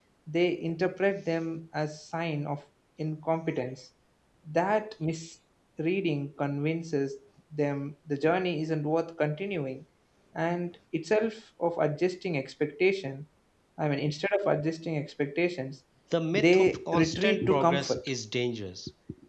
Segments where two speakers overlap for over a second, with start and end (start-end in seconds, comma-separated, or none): 16.3-18.1